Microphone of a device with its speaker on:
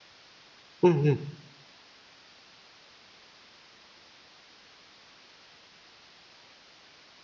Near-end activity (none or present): present